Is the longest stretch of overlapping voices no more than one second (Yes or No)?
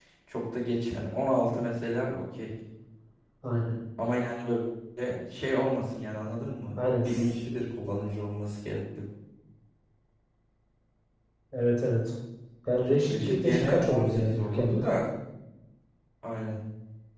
No